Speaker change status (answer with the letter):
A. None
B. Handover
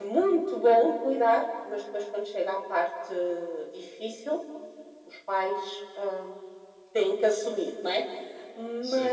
A